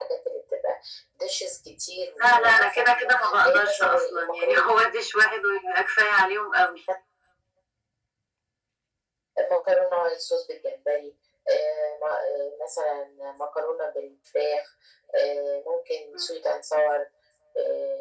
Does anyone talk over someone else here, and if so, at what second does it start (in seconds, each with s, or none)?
2.2 s